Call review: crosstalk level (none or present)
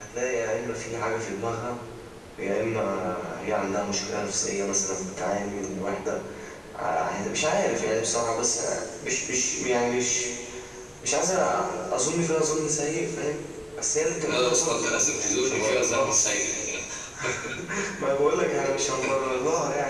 present